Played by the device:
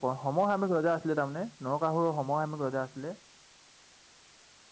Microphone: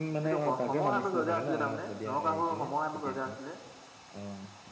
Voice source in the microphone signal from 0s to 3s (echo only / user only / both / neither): both